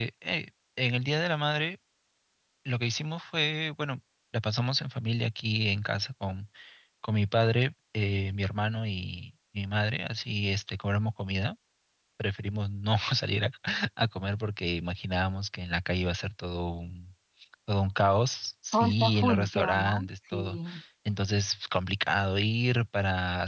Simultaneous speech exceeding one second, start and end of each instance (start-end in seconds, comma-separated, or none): 18.7-20.6